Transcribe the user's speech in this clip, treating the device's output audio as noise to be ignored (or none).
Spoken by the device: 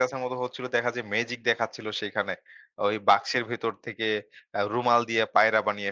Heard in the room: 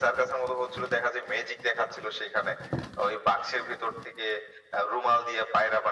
none